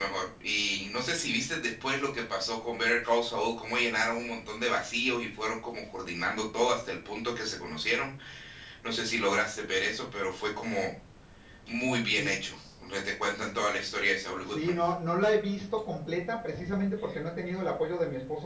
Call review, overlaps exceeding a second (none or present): none